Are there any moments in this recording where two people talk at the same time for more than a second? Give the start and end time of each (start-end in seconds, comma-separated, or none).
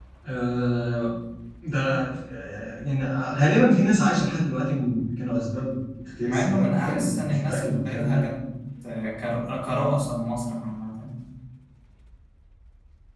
6.2-8.2